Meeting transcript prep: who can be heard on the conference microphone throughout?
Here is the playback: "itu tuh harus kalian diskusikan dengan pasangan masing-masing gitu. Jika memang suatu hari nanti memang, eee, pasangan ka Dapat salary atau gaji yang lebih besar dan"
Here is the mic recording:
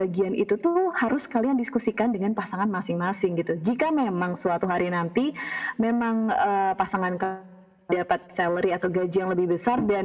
echo only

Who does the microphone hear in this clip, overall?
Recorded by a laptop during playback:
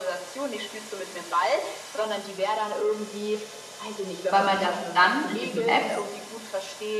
both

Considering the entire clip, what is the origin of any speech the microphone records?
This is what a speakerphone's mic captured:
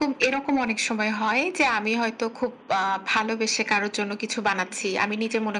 echo only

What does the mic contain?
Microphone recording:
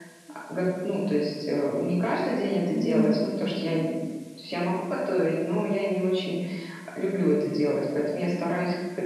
both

